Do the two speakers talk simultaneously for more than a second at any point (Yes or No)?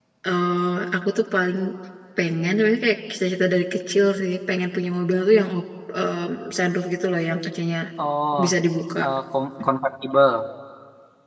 No